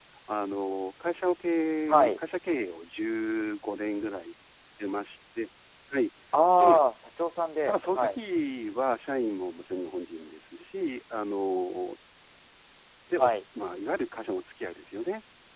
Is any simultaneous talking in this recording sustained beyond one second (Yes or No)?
No